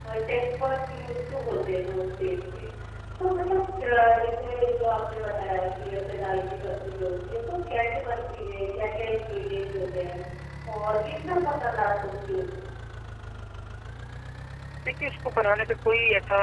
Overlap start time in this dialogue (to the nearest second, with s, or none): none